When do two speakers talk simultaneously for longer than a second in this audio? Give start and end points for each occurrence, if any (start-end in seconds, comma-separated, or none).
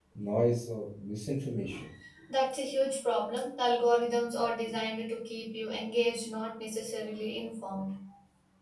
none